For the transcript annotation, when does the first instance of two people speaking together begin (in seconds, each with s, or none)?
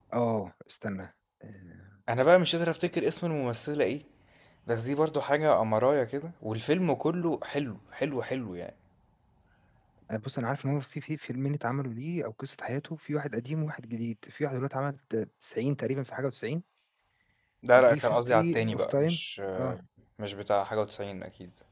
17.7 s